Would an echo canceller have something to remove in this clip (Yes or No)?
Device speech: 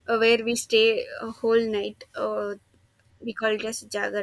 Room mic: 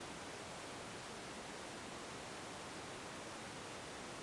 No